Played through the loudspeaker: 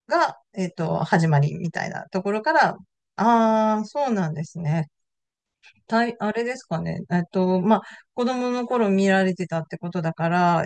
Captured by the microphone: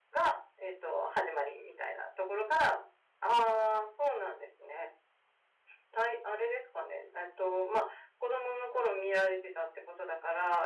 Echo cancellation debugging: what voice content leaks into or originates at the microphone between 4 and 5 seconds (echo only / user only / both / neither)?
echo only